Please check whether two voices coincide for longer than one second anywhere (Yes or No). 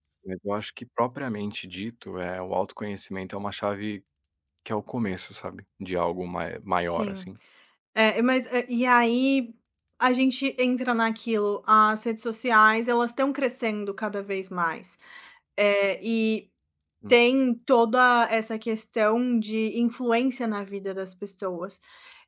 No